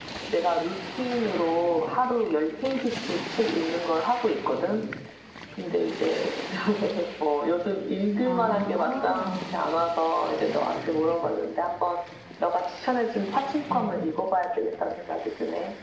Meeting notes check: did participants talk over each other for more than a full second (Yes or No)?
Yes